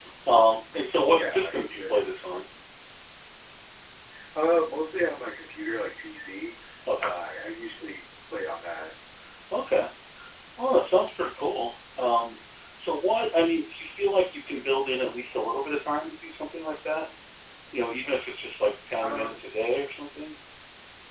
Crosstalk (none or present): present